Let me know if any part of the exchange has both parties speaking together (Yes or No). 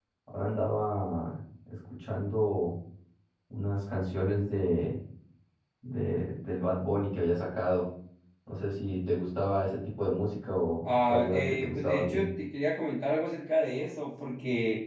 Yes